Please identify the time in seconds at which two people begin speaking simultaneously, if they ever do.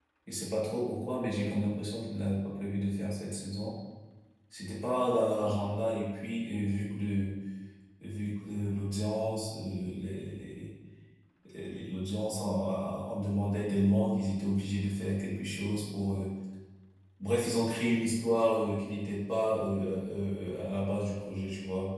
none

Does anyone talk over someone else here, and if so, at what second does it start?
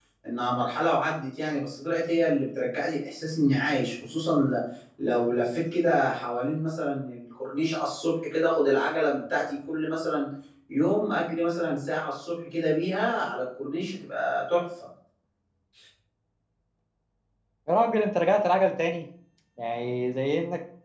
none

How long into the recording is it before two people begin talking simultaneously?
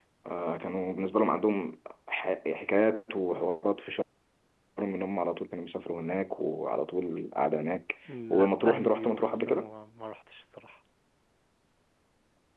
8.1 s

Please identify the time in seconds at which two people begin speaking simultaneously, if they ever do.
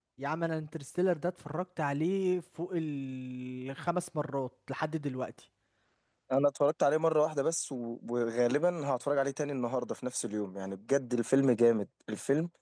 none

